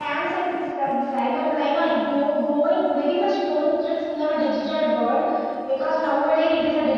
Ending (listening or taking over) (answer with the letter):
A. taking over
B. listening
B